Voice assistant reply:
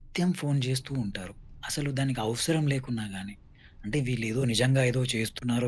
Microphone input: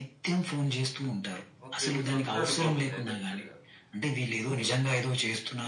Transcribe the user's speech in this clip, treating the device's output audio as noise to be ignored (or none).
ఓకే. మీ సొంత అనుభవం ఇది అయితే యాక్చువల్‌గా.